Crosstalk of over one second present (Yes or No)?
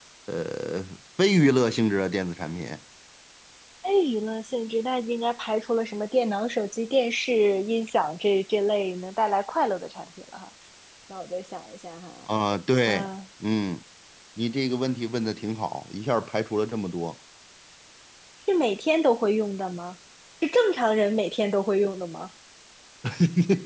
No